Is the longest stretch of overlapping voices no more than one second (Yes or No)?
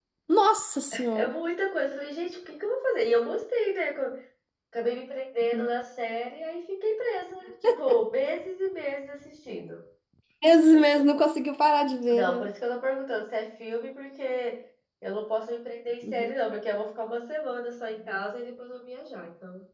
Yes